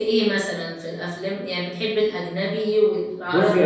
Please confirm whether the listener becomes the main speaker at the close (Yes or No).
Yes